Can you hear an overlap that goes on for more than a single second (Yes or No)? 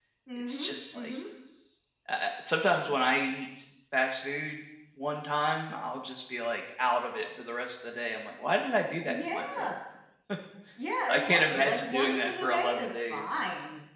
Yes